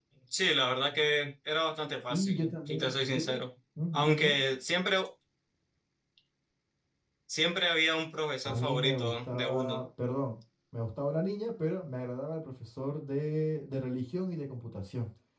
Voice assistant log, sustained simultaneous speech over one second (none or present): present